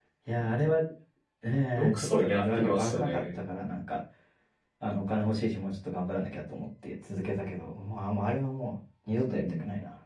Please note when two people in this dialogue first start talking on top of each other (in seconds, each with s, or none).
1.7 s